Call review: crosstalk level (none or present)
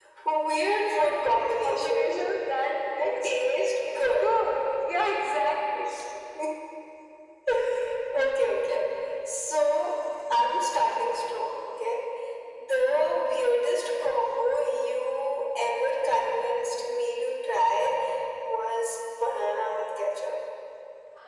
present